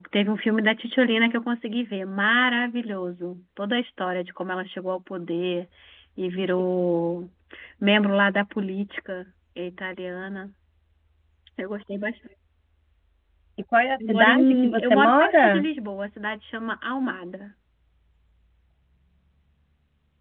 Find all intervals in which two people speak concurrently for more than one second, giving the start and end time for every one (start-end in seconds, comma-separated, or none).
14.0-15.7